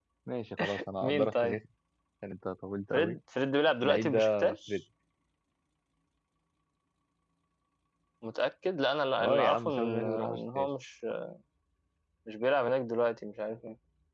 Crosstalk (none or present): present